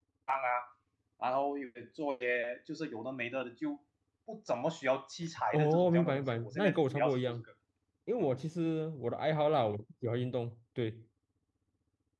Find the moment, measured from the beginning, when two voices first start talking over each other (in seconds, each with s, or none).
5.5 s